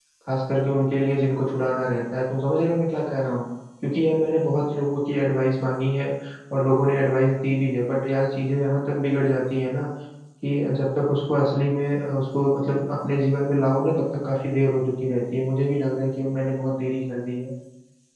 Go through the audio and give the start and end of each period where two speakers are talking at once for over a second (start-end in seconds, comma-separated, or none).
none